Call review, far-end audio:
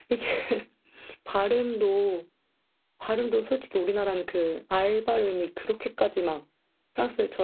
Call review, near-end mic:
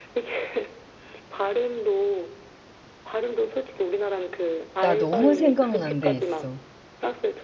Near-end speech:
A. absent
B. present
B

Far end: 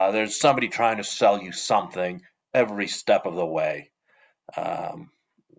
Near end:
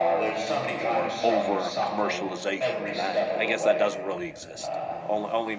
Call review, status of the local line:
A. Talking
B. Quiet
A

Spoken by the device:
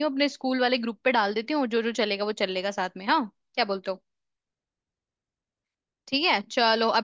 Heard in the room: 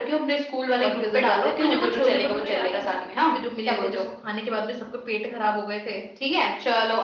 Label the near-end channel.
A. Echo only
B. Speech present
B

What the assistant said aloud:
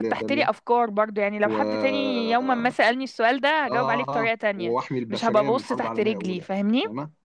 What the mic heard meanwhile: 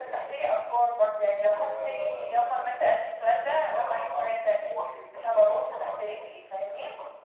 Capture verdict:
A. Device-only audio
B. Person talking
A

